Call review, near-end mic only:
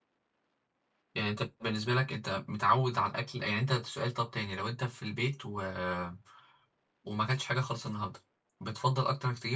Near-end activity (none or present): present